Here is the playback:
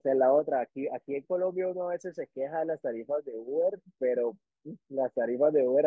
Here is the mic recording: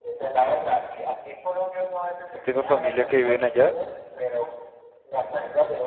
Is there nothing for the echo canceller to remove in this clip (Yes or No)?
No